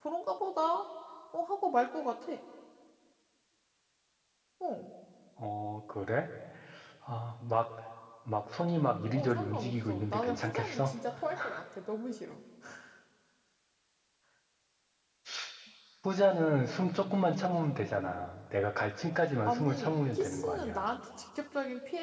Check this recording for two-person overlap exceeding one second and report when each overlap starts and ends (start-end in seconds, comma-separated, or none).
9.2-10.9, 19.4-20.9